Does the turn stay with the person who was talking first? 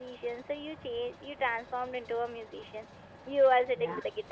Yes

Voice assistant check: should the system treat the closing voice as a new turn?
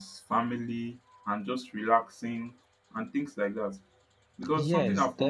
Yes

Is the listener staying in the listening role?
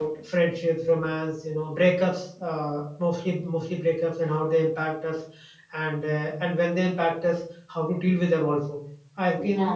No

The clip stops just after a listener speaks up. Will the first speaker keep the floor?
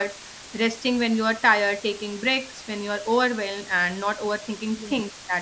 Yes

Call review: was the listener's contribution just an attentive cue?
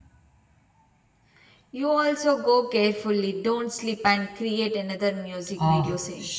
No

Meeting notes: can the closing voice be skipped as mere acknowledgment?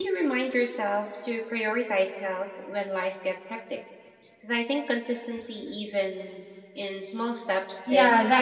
No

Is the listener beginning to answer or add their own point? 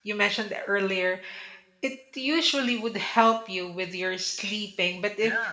No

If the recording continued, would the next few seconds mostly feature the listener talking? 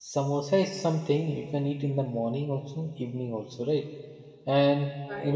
No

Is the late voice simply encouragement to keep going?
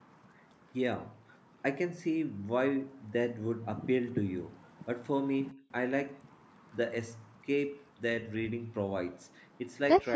No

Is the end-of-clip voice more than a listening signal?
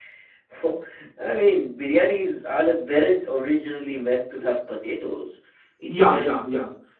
Yes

